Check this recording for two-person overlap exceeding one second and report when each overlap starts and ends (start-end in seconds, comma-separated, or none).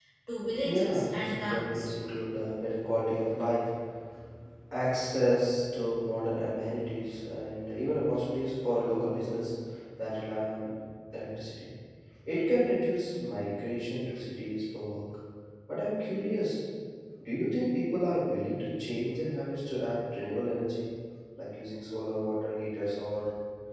0.6-1.9